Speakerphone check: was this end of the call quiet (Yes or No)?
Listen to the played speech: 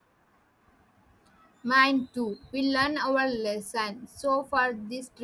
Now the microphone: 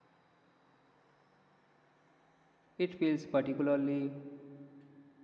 No